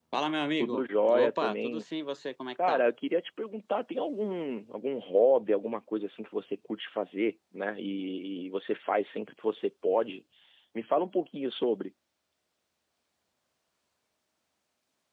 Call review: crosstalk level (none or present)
present